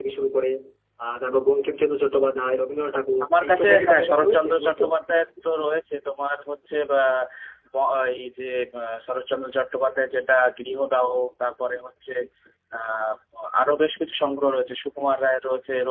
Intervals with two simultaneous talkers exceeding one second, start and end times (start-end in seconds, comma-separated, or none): 3.2-4.8